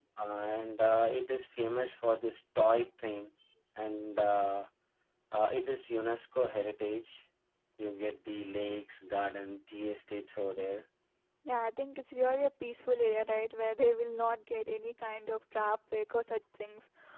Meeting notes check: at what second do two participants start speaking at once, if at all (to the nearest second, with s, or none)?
none